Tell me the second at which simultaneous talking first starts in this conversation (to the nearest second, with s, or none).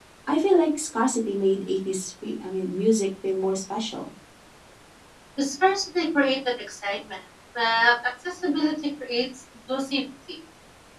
none